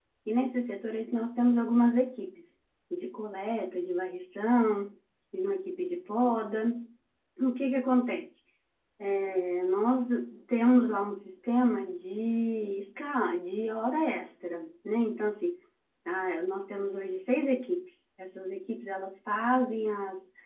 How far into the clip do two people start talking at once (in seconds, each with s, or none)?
none